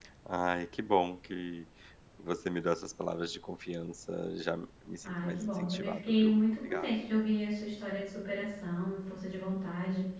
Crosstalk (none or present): present